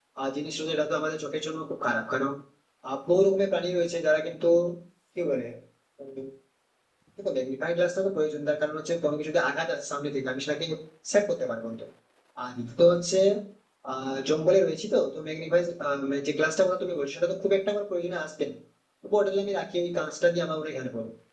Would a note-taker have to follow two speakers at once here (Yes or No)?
No